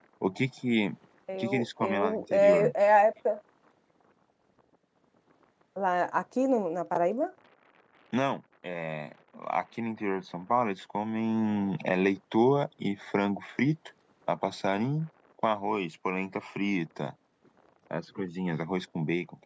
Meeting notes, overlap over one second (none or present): present